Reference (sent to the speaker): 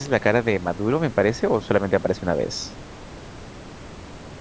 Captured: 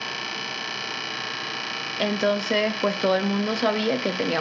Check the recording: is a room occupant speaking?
Yes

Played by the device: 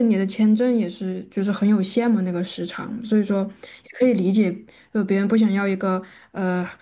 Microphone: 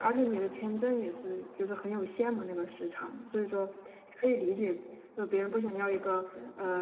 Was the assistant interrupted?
Yes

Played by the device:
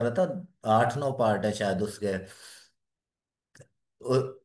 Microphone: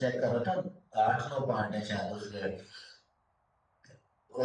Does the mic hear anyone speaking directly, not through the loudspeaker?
No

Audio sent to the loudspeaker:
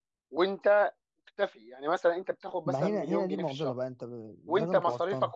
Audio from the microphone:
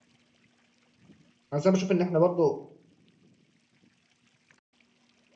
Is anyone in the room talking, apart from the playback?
Yes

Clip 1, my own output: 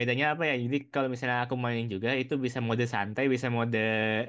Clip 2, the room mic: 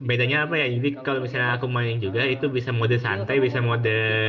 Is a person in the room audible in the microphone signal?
Yes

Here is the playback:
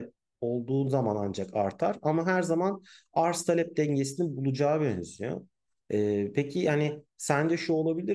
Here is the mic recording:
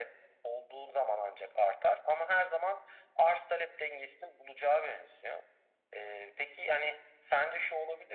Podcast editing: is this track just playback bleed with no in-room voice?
Yes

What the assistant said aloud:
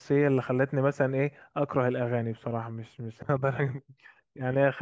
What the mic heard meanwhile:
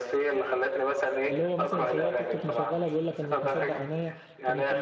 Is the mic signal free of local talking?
No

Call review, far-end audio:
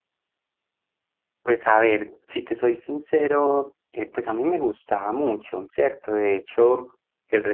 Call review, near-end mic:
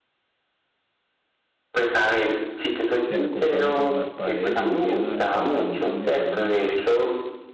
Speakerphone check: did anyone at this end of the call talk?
Yes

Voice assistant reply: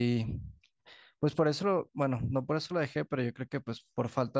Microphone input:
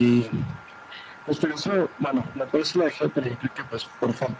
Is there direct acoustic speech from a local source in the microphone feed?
No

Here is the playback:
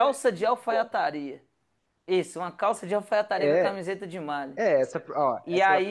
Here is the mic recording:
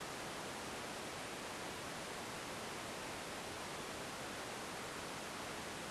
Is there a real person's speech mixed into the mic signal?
No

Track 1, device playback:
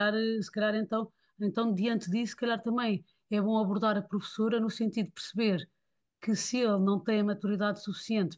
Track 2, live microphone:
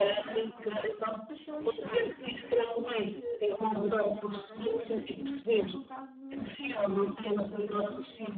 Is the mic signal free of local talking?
No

